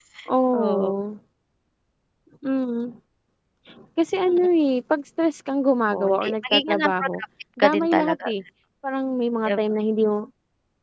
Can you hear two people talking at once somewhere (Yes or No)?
Yes